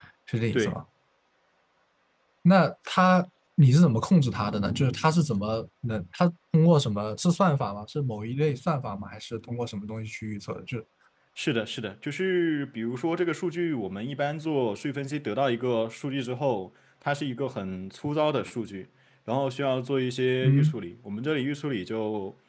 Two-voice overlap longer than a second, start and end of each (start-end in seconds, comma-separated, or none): none